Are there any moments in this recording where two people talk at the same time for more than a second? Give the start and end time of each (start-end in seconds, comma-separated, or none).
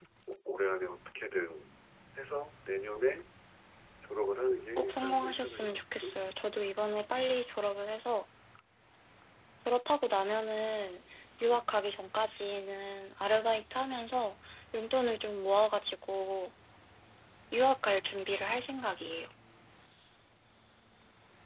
4.8-6.2